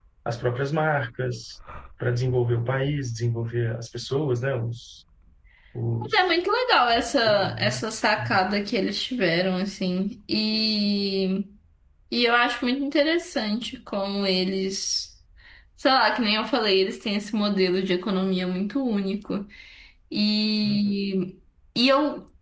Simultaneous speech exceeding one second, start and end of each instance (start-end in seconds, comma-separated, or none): none